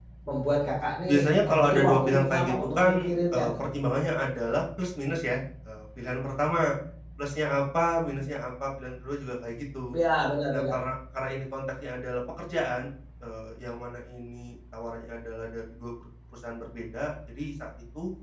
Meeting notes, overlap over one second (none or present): present